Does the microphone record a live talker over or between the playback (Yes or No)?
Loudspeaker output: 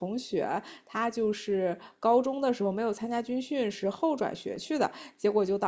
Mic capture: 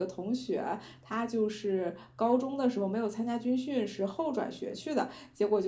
No